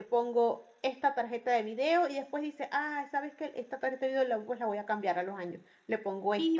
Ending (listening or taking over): listening